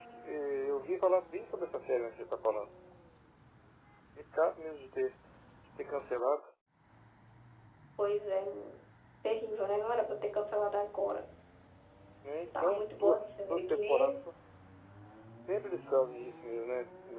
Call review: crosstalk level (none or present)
present